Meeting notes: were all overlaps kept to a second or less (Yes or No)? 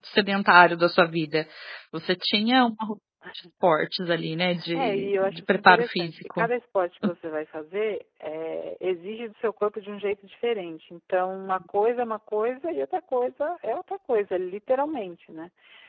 No